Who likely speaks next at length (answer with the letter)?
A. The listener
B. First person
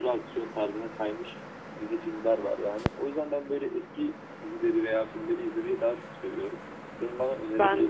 B